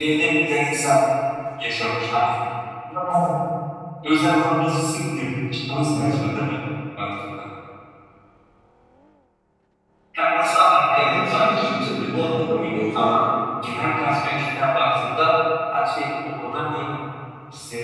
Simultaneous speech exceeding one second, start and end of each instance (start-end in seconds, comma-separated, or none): 10.9-13.2